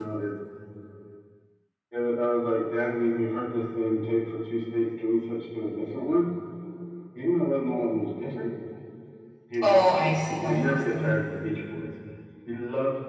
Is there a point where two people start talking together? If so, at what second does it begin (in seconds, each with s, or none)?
9.6 s